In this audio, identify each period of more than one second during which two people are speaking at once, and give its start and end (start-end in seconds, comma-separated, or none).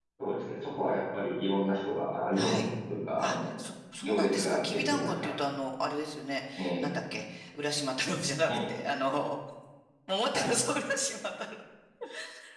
4.0-5.3